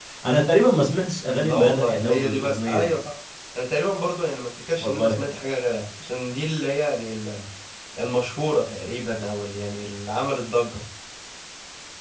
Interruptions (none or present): present